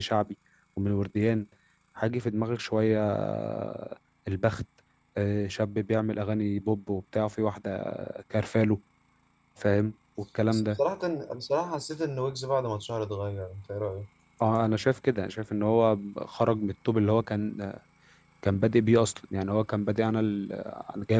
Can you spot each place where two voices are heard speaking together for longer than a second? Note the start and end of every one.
none

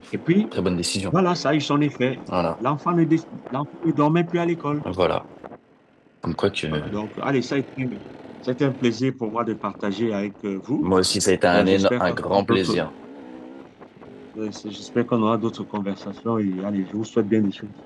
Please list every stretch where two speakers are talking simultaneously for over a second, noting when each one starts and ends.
11.5-12.8

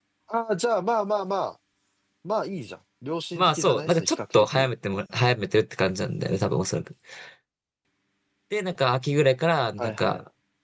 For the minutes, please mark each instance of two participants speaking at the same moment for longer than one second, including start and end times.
3.4-4.7

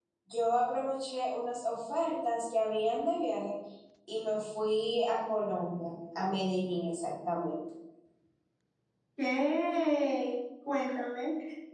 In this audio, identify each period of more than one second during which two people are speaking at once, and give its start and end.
none

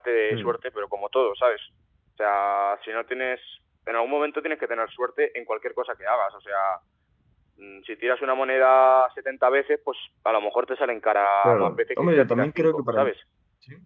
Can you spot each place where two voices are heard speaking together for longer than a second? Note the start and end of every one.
11.4-13.1

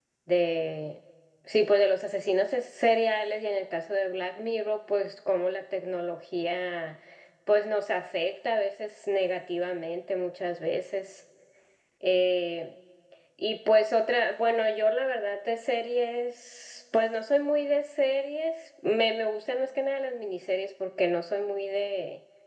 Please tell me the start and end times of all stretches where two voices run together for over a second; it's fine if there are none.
none

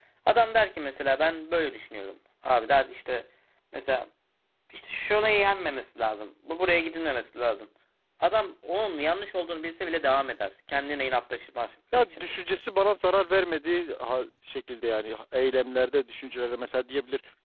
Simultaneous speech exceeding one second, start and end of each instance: none

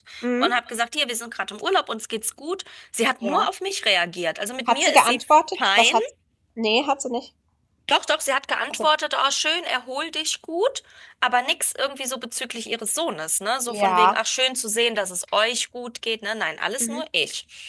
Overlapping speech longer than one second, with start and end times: 4.7-6.0

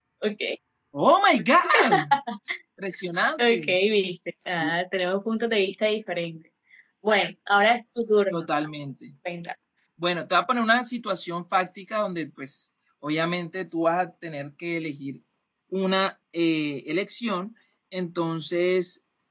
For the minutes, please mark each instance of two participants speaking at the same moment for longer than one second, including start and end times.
none

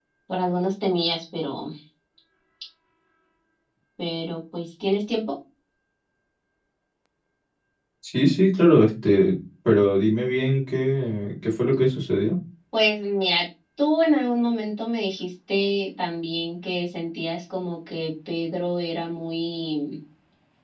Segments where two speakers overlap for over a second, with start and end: none

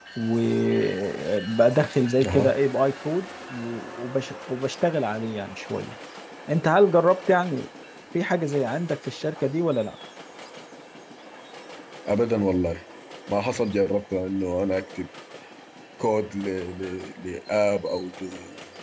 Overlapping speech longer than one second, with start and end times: none

